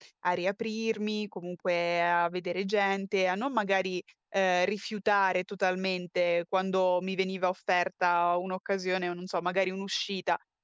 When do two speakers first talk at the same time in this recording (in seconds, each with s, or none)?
none